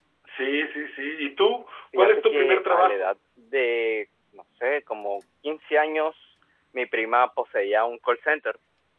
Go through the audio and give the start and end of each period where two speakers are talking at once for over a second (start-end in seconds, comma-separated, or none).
2.0-3.2